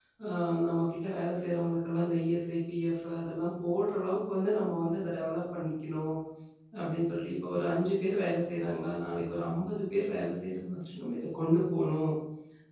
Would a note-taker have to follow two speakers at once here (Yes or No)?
No